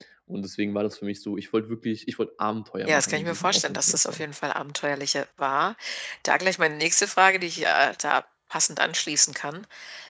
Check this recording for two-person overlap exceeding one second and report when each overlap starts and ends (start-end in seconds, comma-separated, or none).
2.9-4.2